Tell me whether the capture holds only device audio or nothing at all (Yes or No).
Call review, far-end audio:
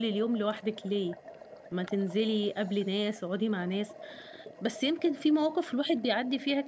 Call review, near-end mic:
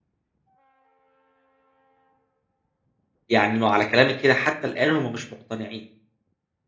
No